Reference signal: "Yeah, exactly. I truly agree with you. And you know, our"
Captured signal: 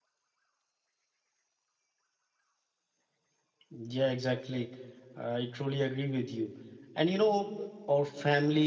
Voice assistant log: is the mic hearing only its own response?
Yes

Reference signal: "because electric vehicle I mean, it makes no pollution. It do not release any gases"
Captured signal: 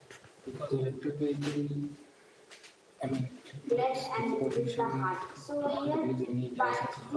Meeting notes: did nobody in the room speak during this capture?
No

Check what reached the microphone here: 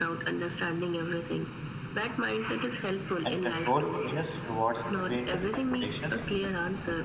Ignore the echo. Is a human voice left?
Yes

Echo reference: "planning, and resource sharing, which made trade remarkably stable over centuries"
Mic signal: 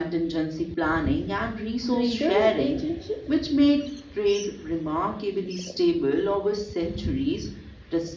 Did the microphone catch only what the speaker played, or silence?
No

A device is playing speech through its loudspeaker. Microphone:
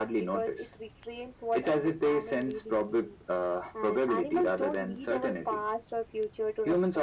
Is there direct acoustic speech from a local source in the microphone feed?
No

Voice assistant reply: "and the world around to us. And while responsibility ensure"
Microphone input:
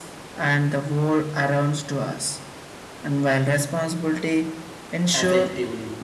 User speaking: Yes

